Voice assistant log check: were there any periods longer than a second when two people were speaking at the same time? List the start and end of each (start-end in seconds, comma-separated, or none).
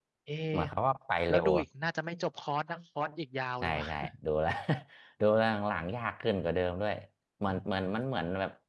none